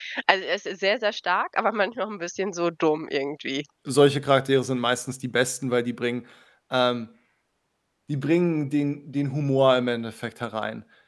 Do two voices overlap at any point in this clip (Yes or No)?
No